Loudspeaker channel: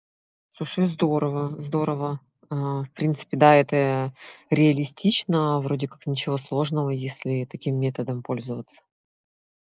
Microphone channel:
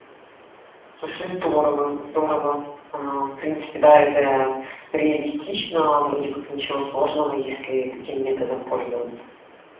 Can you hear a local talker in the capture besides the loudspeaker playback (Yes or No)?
No